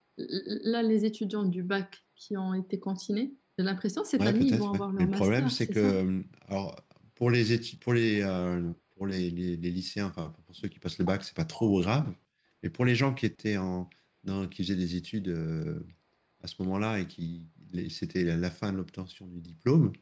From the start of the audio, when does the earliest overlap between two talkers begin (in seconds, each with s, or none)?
4.2 s